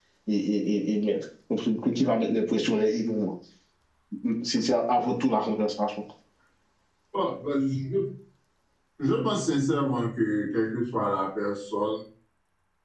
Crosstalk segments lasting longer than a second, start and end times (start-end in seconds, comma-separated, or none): none